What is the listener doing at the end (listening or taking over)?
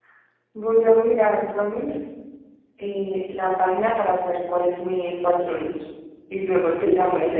taking over